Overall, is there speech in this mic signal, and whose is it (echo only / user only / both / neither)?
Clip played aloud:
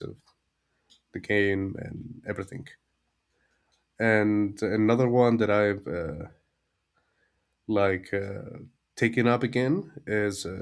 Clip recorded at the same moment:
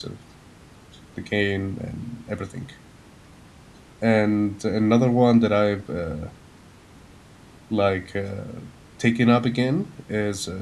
echo only